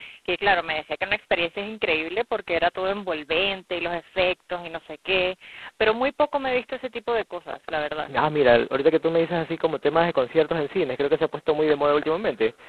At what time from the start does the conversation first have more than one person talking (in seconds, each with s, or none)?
none